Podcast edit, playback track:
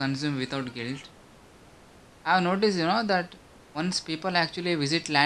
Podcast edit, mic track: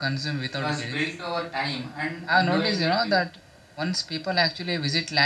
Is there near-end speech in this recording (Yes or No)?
Yes